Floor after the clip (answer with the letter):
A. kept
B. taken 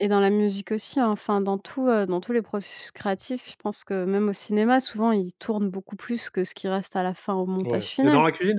B